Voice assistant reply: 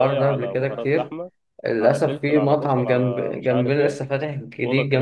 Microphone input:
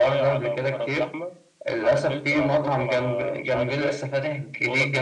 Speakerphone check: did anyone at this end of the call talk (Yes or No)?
No